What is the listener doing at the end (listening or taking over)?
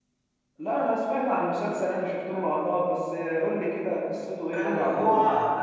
taking over